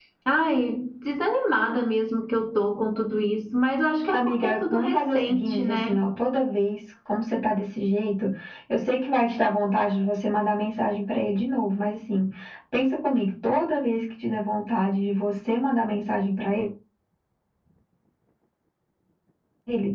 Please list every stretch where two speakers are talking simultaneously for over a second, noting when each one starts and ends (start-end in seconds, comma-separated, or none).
4.1-6.0